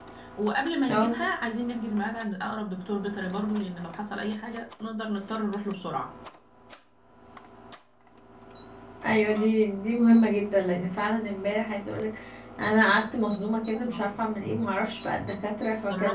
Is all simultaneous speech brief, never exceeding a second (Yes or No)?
Yes